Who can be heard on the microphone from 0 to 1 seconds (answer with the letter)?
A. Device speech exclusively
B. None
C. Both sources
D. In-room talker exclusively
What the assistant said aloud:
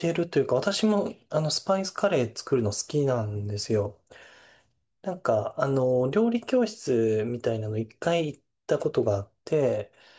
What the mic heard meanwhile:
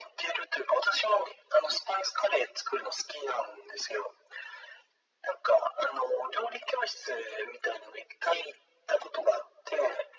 A